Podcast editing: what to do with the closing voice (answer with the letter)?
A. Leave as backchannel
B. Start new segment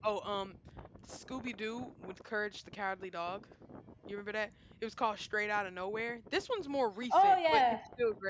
B